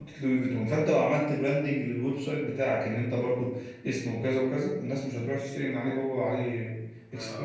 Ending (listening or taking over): taking over